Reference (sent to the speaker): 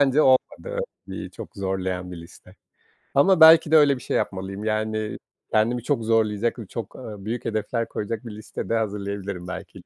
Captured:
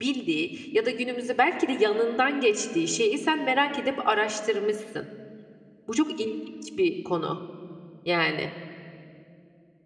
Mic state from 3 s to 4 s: user only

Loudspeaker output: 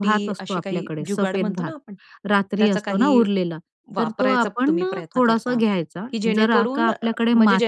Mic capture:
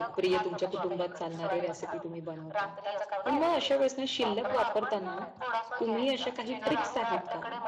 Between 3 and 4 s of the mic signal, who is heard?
both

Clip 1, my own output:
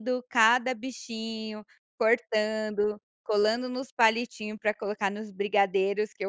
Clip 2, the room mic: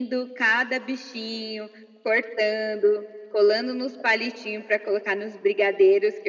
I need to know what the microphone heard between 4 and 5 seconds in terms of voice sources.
echo only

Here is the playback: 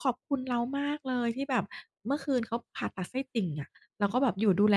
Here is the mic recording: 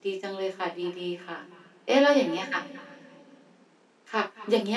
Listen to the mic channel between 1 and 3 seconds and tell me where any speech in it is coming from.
user only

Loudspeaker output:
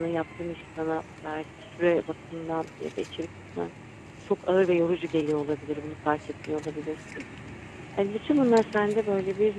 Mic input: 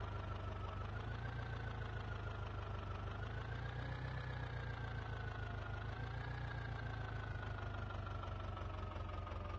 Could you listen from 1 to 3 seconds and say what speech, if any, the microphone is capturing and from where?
neither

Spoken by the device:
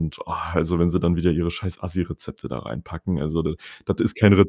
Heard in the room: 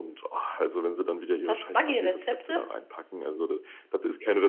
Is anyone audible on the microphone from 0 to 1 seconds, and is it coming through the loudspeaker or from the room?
echo only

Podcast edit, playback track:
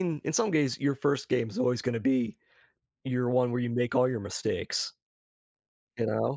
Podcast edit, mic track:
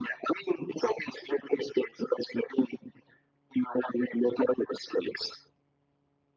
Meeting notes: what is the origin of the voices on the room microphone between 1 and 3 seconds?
echo only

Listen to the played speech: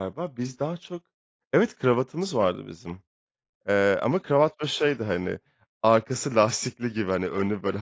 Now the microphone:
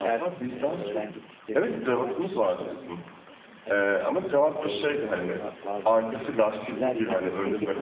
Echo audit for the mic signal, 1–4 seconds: both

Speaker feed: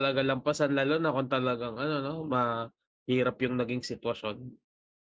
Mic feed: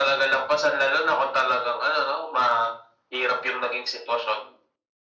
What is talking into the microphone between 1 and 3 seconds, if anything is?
echo only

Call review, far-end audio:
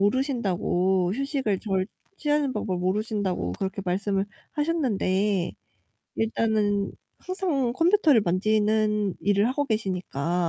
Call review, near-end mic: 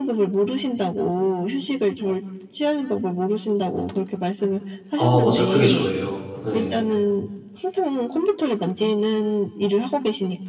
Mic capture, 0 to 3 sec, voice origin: echo only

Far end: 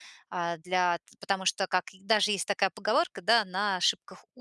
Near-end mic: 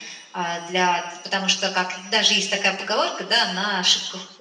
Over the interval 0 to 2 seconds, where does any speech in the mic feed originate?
echo only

